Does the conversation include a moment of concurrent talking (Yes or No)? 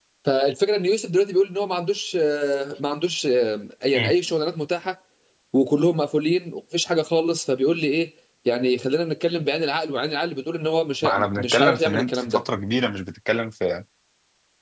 Yes